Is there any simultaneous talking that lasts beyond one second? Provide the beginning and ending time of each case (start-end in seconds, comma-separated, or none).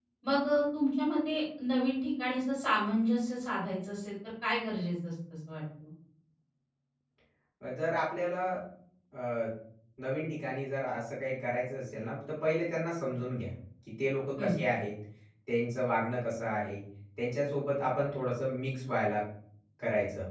none